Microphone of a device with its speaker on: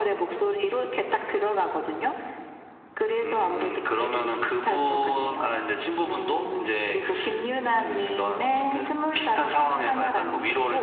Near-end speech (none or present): none